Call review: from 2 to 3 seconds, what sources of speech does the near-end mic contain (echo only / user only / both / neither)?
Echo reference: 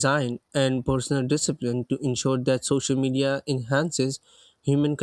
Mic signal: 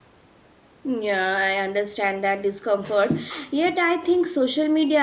user only